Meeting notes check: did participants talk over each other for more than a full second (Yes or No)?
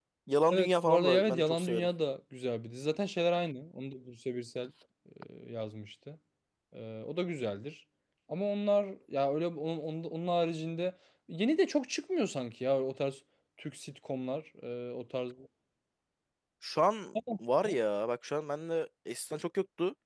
Yes